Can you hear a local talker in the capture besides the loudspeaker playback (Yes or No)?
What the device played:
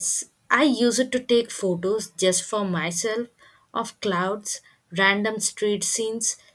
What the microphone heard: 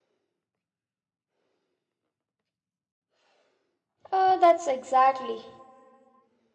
Yes